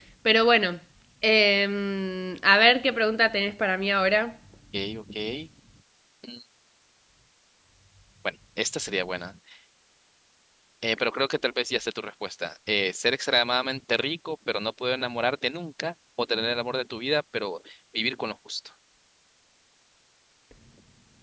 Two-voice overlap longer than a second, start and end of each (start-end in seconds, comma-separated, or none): none